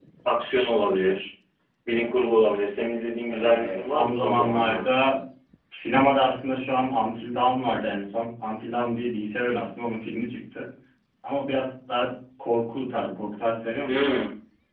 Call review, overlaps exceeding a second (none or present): present